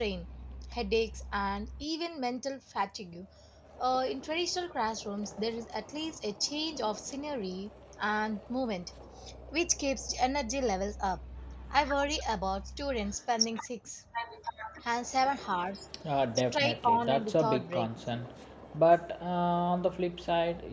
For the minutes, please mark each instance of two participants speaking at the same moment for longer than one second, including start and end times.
16.5-17.9

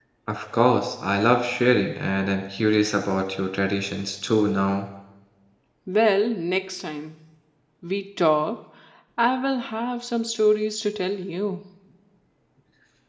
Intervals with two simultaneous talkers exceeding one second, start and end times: none

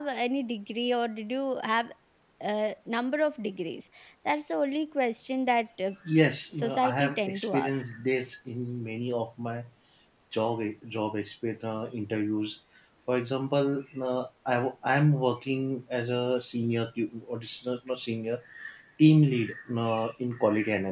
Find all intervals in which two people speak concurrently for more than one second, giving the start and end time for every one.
6.5-7.8

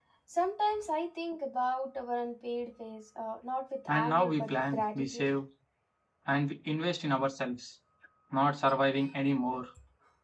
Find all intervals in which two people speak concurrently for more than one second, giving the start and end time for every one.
3.9-5.3

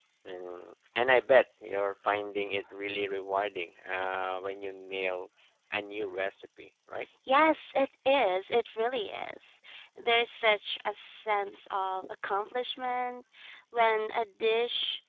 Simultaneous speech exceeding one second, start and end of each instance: none

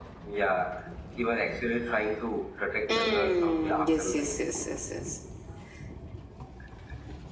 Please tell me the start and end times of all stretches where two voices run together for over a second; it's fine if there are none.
2.9-4.4

